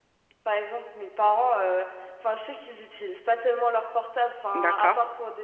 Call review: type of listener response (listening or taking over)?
listening